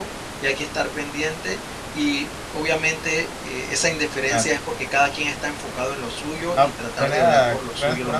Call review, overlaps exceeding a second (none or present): present